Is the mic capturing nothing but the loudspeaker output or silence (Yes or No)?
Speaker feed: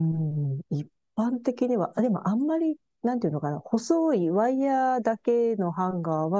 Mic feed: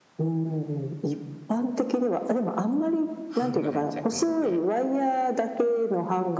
No